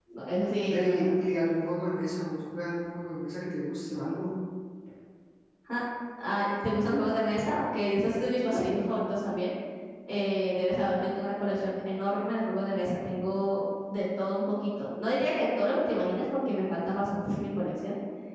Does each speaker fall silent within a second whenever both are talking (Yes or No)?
Yes